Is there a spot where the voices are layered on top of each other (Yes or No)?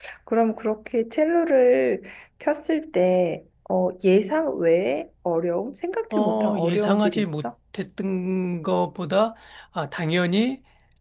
Yes